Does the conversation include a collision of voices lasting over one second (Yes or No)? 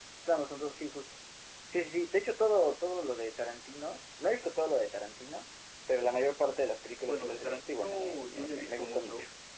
Yes